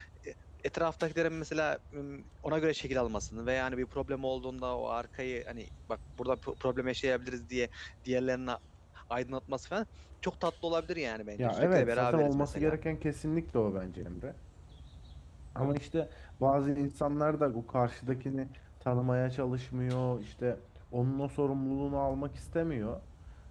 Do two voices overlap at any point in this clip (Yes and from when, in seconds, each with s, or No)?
Yes, from 11.4 s